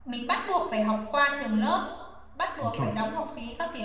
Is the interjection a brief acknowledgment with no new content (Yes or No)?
Yes